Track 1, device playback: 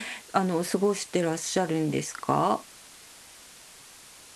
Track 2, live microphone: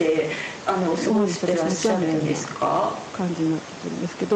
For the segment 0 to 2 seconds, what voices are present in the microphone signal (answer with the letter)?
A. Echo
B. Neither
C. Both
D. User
C